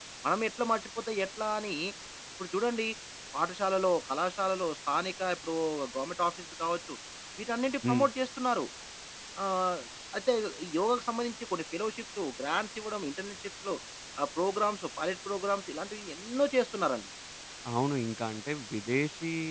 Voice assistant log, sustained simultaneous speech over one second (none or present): none